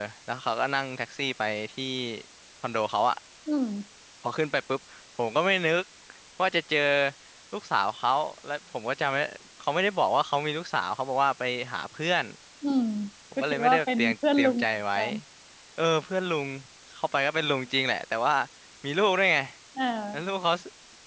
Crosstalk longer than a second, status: present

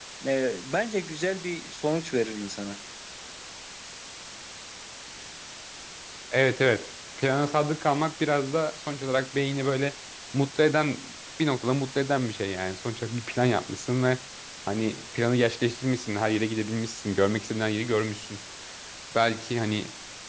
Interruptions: none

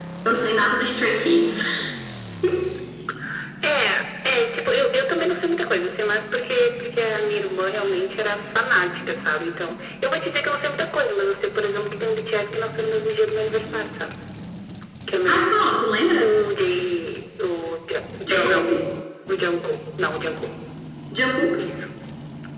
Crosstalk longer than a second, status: none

